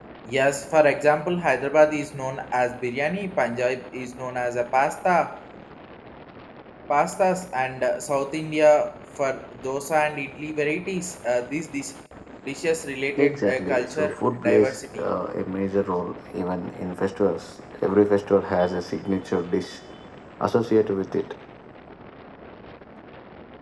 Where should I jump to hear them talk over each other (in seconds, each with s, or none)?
13.2 s